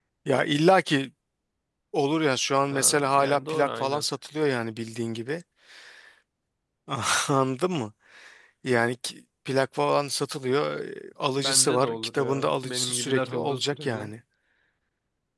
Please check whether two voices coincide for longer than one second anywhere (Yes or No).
Yes